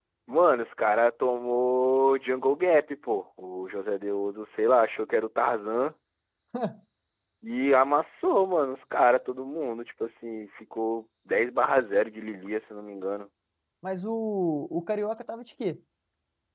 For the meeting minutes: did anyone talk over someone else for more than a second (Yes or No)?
No